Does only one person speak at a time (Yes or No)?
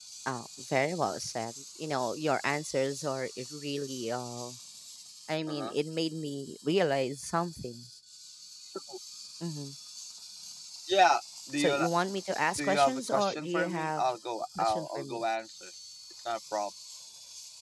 No